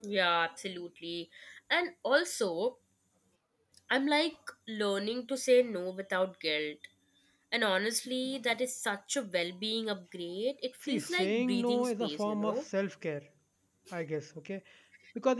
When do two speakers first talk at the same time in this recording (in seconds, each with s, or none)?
10.8 s